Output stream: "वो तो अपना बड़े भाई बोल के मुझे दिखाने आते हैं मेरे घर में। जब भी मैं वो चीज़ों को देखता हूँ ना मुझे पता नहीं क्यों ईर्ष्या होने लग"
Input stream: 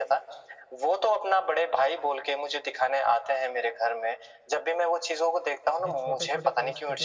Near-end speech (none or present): present